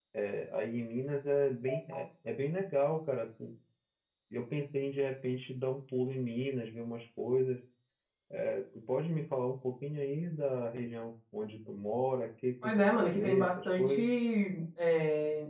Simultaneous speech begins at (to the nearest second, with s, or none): 13 s